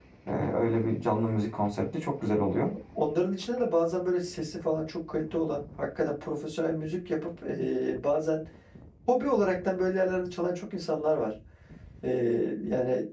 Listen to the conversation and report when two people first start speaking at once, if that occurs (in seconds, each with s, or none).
none